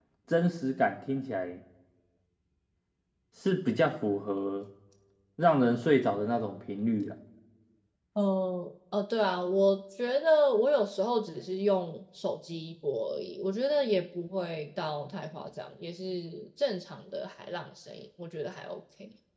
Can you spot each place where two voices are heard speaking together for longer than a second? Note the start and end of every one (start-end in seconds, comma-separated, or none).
none